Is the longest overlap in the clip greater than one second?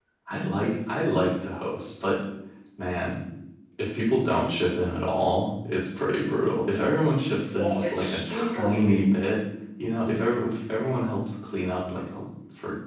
Yes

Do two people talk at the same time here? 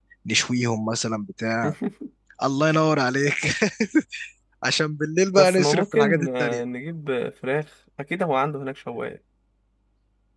Yes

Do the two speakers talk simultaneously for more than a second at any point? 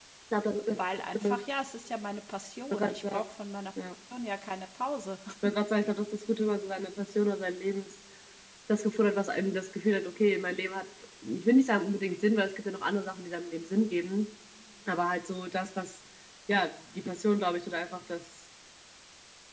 No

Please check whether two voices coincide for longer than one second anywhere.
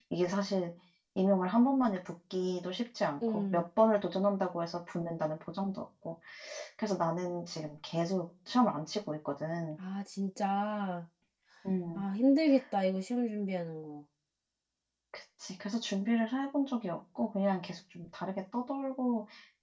No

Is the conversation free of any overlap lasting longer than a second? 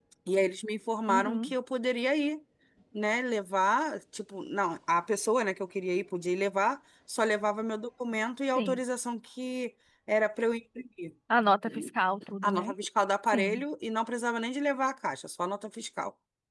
Yes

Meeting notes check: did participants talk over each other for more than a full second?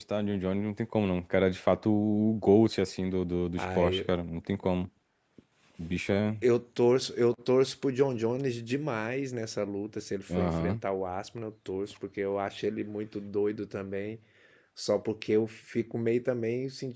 No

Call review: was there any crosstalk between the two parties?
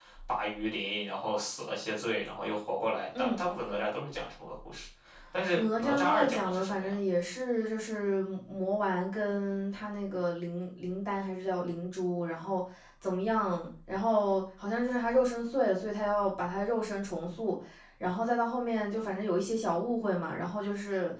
Yes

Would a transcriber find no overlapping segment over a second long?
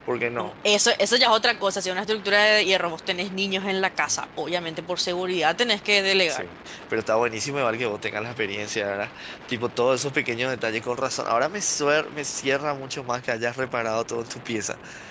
Yes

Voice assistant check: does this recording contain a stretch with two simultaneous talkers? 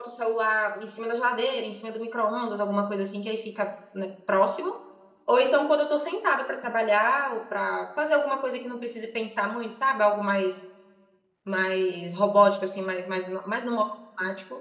No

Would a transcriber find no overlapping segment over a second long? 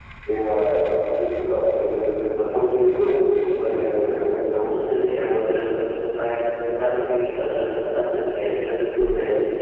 Yes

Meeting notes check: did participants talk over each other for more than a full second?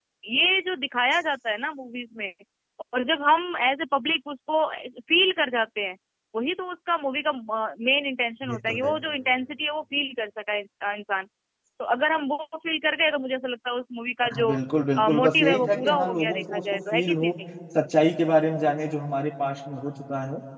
Yes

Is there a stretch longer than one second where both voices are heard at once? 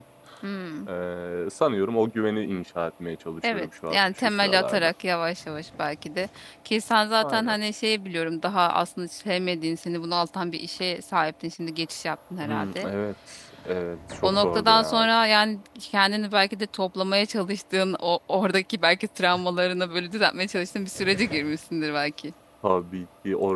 Yes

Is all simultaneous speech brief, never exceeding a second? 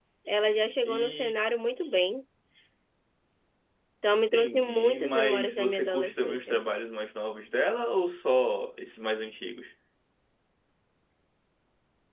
No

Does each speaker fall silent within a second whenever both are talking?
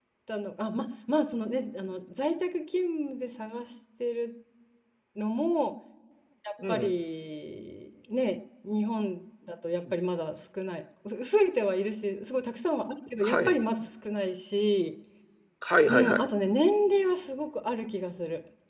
Yes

